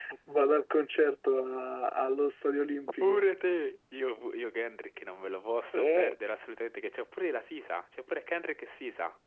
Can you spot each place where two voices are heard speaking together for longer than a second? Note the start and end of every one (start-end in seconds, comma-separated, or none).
none